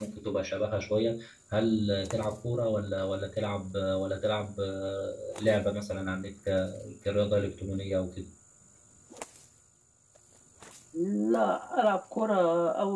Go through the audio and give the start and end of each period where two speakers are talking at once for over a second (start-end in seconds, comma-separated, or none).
none